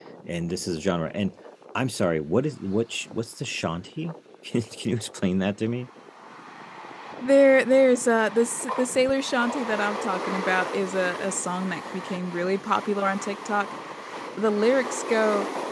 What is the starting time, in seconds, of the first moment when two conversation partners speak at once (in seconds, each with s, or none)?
none